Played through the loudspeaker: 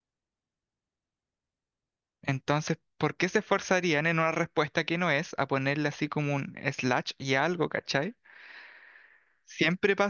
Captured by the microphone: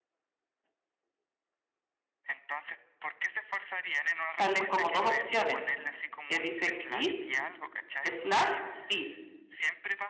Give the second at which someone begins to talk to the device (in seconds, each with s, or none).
4.2 s